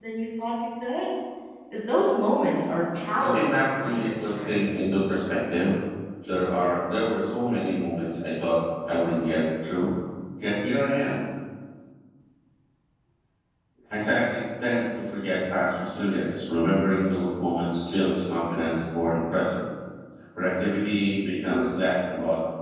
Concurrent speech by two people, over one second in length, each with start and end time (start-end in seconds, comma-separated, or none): 3.2-4.6